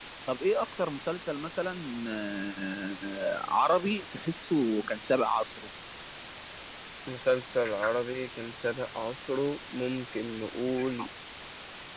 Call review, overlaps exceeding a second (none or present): none